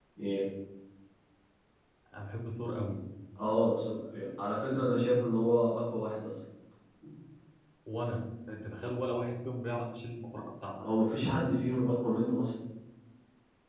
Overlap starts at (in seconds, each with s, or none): none